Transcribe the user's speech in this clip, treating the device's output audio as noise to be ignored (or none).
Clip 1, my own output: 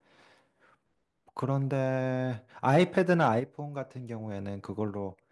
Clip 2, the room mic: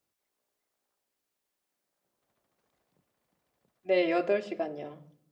네, 8시간요.